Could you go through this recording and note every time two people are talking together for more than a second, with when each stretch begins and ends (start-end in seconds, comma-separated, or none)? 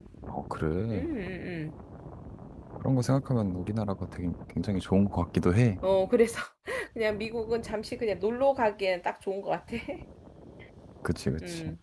none